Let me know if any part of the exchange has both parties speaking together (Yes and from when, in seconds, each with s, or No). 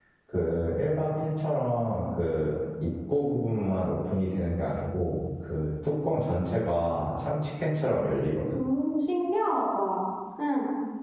No